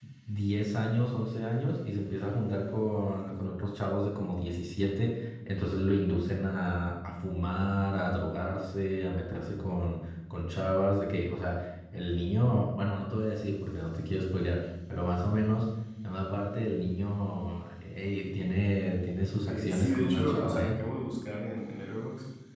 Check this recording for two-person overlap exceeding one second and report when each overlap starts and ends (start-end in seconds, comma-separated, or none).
19.5-20.8